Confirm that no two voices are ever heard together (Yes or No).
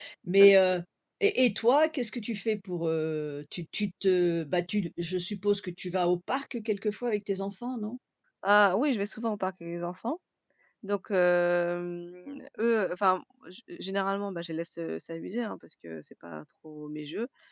Yes